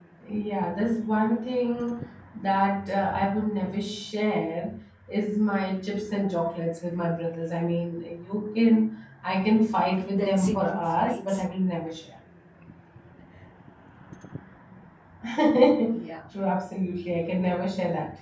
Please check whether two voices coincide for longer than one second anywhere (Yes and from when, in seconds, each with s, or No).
Yes, from 10.1 s